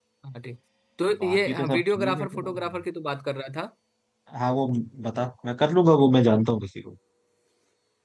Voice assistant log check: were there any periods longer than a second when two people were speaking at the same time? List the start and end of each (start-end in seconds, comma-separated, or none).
1.2-2.5